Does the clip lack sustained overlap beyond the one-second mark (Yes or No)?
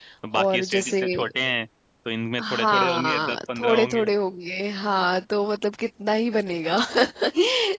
No